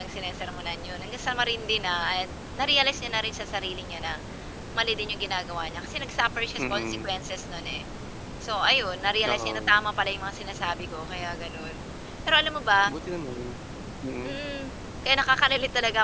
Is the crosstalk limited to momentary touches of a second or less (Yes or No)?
Yes